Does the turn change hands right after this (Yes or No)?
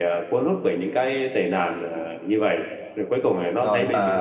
Yes